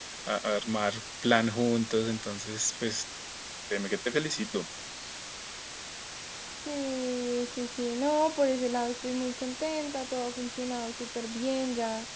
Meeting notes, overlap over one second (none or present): none